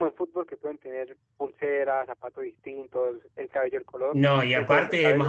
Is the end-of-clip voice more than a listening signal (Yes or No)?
Yes